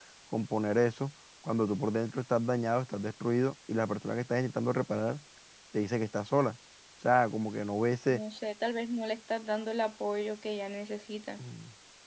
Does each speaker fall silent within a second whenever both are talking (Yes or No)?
Yes